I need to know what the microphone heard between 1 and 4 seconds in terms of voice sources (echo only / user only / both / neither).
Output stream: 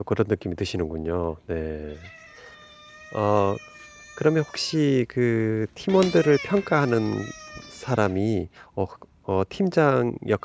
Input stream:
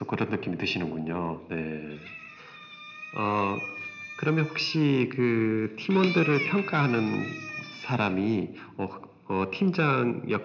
echo only